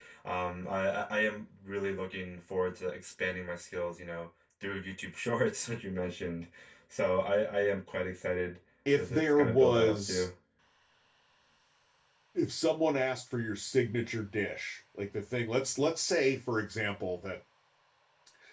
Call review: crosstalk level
present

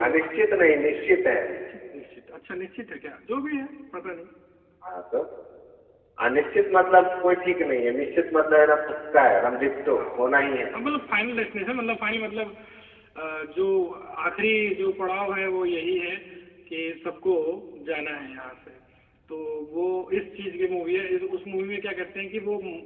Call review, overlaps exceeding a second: none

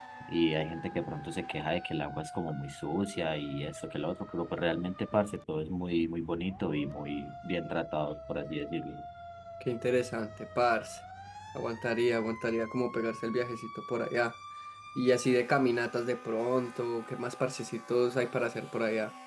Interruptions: none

